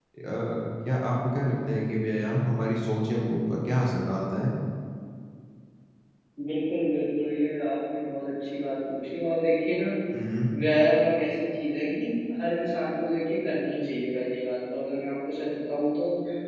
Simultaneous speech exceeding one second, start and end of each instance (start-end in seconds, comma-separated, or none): none